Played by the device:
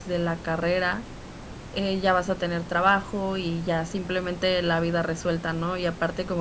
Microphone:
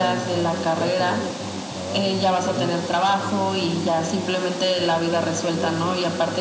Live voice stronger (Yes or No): No